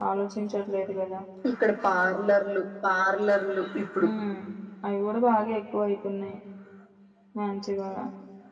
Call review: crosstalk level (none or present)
none